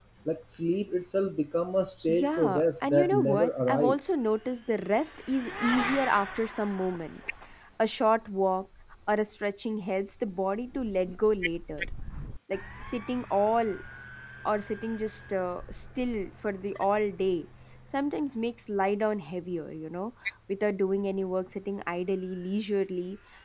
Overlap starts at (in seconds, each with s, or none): 2.1 s